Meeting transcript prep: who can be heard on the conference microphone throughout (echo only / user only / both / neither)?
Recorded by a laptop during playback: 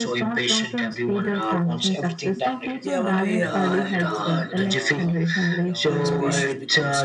both